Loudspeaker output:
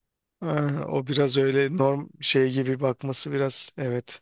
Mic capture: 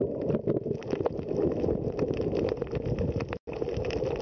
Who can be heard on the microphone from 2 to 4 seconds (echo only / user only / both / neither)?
neither